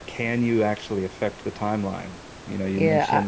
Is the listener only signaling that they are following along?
No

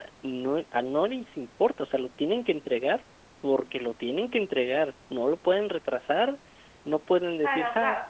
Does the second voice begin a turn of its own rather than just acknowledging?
Yes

